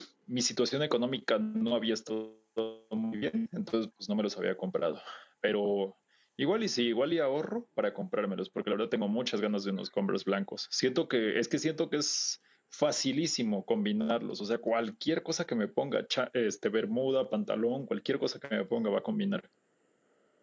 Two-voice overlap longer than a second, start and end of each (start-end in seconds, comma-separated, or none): none